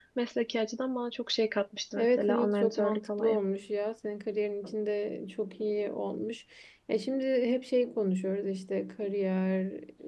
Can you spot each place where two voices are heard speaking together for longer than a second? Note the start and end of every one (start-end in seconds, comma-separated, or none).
2.0-3.4